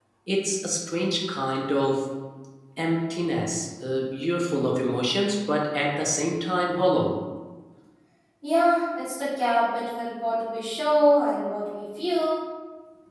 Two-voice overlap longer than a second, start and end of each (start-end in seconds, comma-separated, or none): none